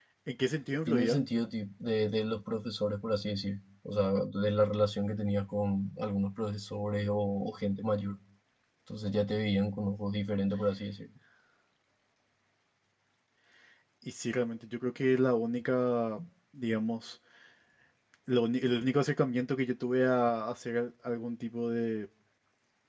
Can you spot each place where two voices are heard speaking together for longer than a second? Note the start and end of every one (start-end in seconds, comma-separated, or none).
none